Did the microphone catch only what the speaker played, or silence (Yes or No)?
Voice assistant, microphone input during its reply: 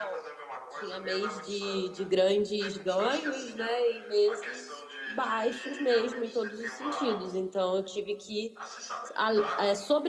No